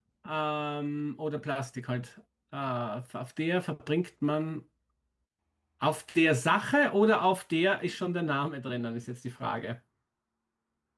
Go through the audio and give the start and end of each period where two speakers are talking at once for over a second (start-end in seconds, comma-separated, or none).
none